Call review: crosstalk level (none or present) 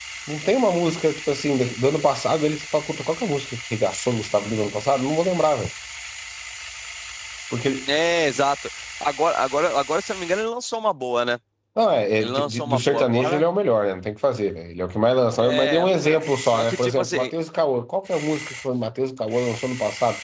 present